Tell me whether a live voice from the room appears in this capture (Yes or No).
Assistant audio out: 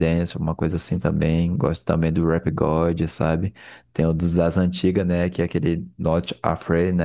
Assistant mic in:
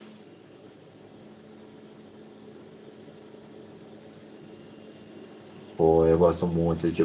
Yes